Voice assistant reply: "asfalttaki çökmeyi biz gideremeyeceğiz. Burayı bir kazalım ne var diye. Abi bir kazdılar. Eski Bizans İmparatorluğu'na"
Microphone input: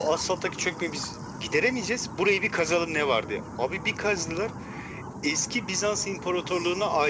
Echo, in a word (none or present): present